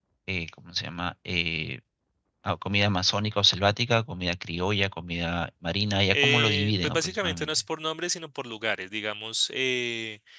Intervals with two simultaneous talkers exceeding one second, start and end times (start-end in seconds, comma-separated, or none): 6.1-7.5